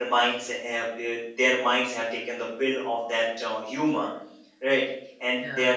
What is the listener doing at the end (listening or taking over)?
listening